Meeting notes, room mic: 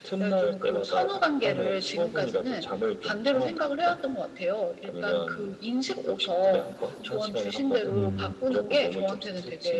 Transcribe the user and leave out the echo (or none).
음.